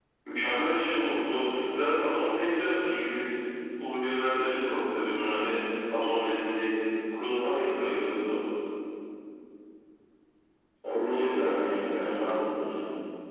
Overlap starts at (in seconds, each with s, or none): 11.0 s